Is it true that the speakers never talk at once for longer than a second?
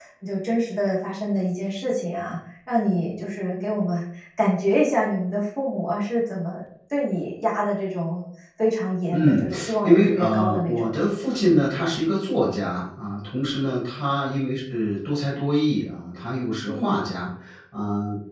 No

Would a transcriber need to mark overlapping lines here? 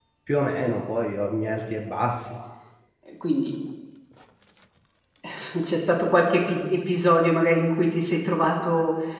No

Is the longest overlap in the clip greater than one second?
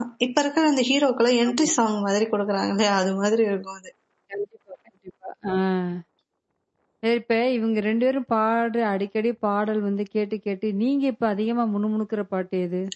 No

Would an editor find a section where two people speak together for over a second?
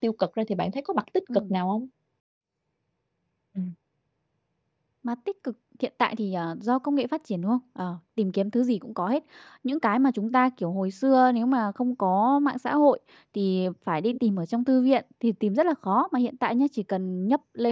No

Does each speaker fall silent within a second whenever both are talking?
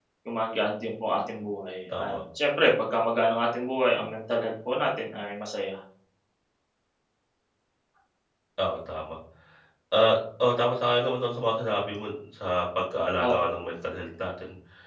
Yes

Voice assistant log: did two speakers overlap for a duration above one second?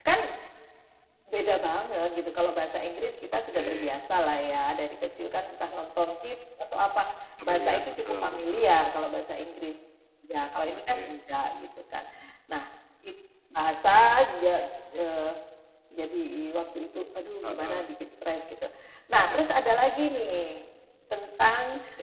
Yes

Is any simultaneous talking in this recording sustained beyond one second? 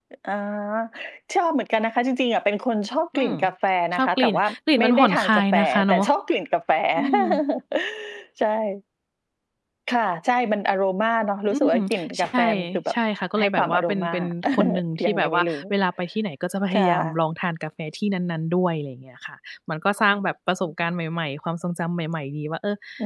Yes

